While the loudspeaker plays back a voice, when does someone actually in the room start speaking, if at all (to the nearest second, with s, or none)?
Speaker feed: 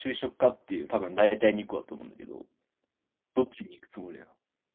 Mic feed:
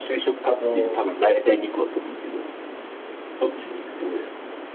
1 s